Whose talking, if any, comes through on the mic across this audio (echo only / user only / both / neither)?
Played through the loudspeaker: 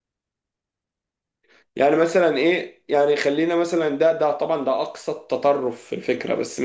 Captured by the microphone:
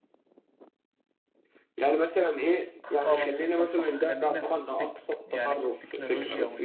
both